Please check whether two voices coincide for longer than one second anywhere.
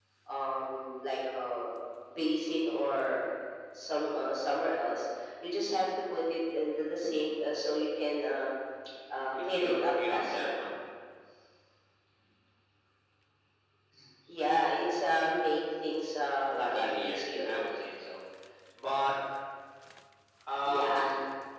Yes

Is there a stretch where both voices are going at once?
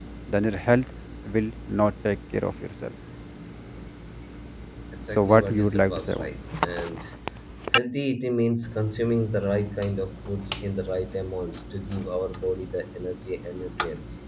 Yes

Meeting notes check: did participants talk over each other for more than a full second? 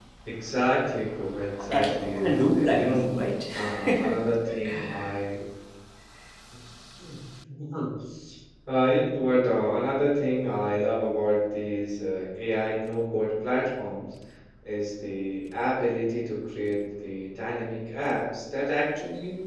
Yes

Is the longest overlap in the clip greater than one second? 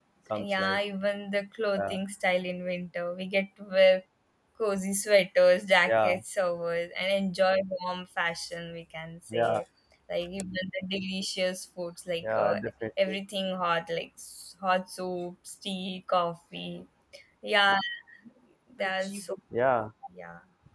No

